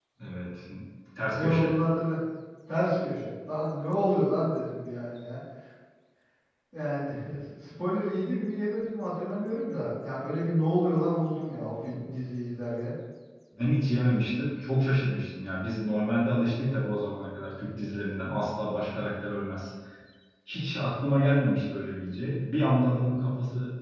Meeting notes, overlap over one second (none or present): none